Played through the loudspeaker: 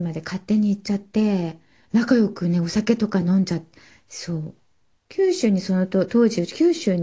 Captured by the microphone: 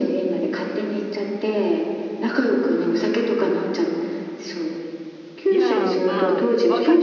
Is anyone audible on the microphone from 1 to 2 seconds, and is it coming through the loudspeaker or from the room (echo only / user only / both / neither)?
echo only